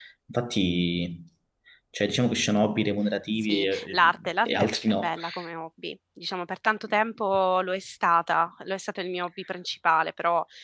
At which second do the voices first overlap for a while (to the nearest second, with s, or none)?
3 s